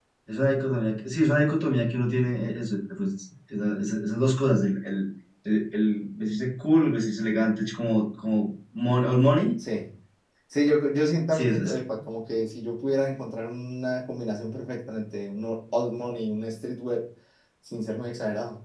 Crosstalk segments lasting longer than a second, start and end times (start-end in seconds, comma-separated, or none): none